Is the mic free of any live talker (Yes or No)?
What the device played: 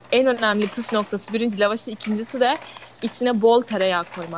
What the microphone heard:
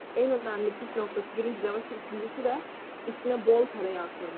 Yes